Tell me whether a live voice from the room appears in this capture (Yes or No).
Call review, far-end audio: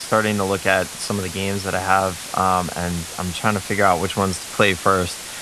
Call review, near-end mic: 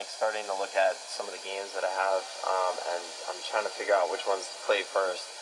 No